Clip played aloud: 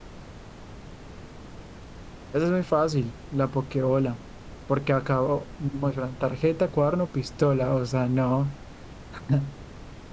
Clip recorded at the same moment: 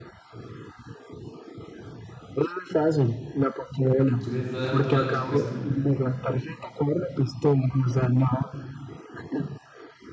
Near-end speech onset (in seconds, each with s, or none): 4.0 s